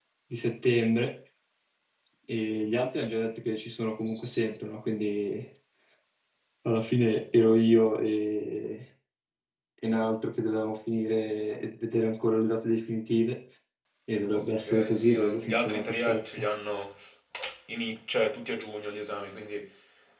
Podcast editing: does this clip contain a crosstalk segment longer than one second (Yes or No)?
Yes